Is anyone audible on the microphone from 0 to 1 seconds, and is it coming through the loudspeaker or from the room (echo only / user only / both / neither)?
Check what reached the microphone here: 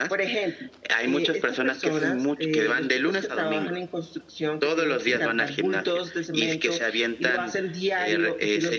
echo only